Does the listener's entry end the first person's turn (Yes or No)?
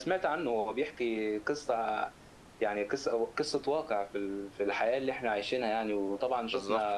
No